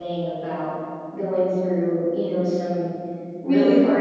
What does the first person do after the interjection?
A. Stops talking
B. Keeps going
A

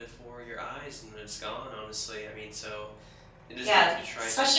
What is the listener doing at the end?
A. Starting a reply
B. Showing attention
A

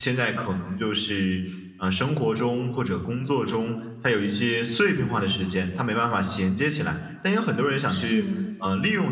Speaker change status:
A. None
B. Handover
A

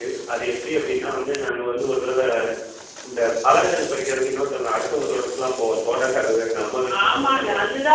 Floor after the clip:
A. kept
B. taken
B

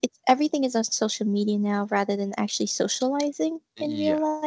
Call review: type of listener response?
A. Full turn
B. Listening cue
A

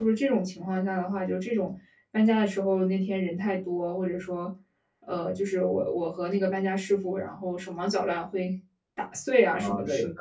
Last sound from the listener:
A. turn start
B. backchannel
A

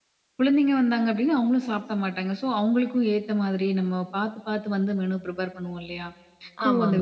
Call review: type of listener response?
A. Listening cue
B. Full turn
A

